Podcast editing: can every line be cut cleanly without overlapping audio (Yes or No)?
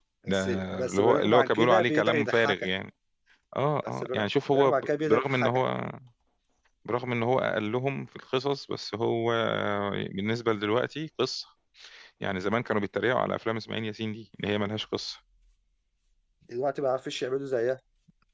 No